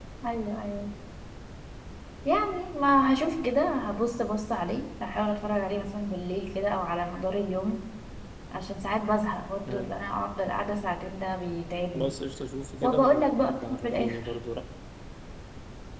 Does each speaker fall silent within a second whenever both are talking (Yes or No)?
No